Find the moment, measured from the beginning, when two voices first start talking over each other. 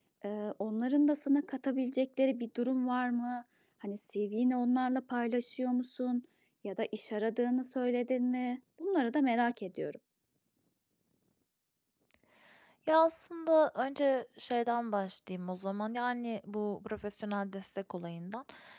none

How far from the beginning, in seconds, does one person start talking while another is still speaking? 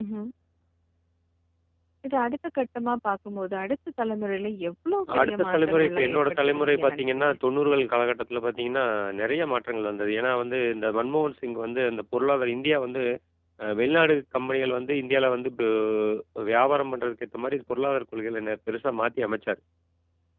5.1 s

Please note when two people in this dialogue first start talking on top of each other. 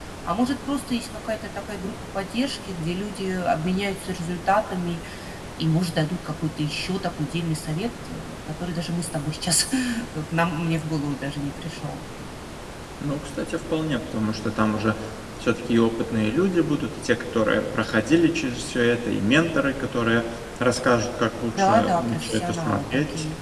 21.6 s

